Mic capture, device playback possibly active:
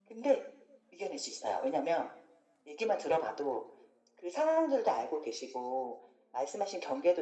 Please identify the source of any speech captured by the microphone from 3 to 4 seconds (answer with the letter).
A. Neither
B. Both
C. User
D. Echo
D